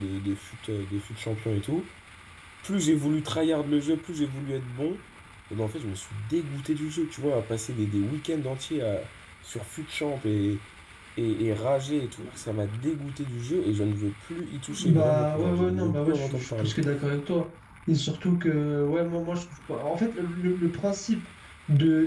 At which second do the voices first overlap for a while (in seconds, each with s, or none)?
14.7 s